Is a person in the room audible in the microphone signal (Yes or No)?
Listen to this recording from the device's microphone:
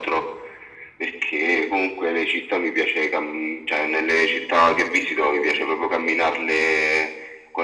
No